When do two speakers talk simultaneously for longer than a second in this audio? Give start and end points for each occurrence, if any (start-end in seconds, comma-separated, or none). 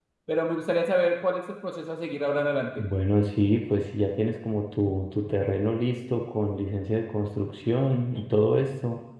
none